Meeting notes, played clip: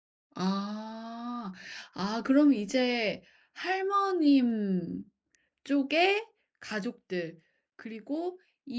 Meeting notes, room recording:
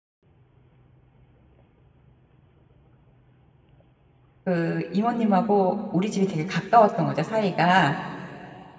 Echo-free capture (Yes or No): Yes